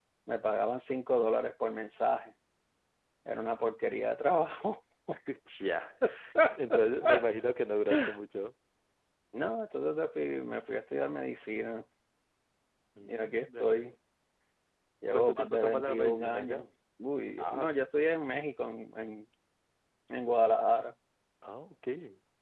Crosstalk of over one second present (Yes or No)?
Yes